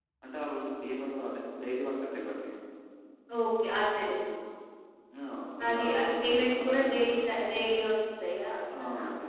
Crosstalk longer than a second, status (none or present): present